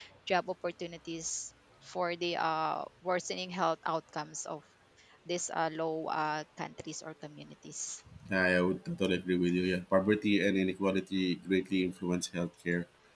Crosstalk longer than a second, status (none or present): none